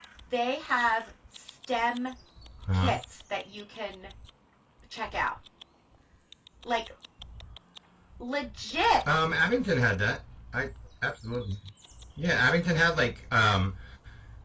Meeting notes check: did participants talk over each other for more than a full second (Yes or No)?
No